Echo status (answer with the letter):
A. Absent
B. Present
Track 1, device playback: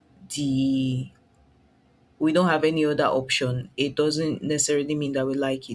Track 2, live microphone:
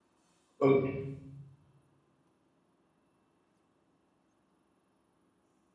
A